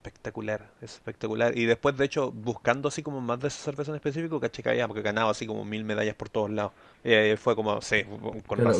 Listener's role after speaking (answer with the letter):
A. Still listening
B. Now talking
B